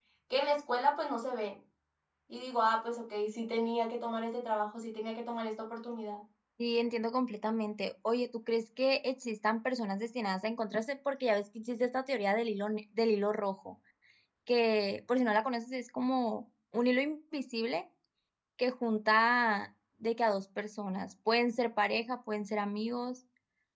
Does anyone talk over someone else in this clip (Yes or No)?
No